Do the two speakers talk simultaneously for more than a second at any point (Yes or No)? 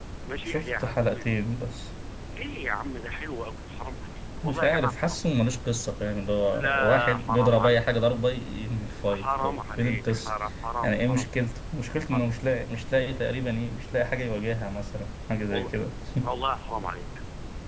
Yes